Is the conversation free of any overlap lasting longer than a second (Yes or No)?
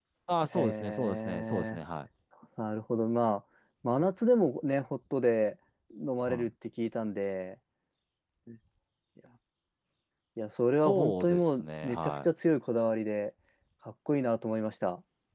No